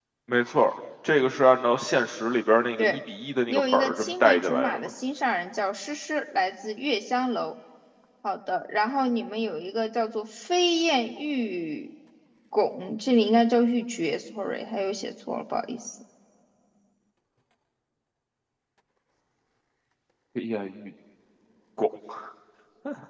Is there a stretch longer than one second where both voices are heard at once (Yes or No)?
Yes